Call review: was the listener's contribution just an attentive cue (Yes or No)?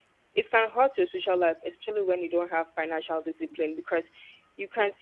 Yes